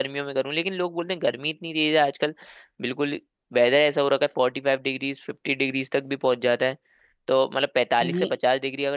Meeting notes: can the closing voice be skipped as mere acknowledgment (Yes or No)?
Yes